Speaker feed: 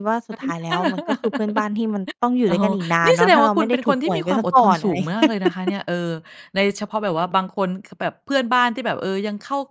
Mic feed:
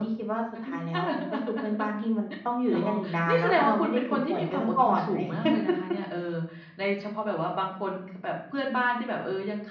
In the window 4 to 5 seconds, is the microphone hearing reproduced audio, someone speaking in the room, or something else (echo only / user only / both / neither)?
echo only